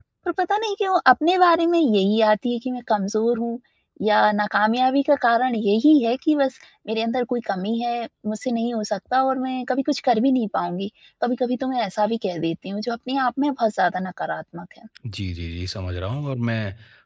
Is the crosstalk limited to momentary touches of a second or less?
Yes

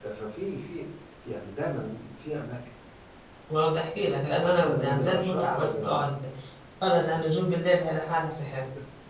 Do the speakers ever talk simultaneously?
Yes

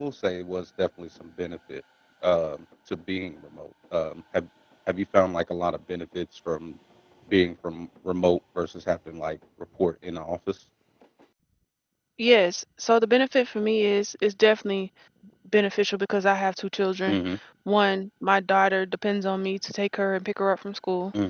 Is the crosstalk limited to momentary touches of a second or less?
Yes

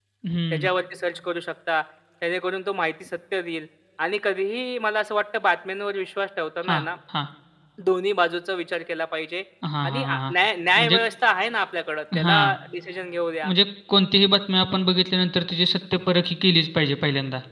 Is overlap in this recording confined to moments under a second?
Yes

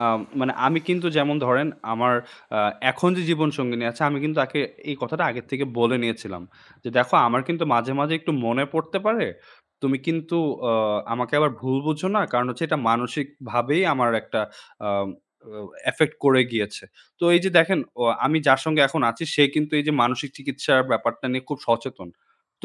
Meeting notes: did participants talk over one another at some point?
No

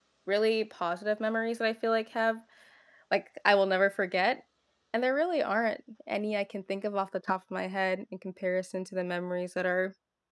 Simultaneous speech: No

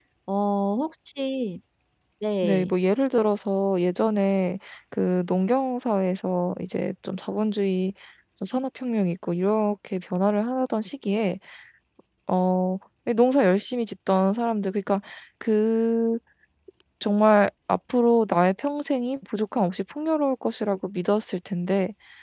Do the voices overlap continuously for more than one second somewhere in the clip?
No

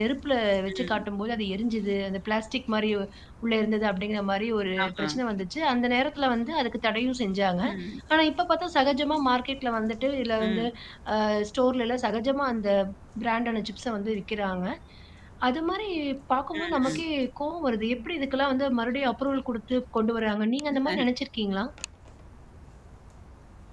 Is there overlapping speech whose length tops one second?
No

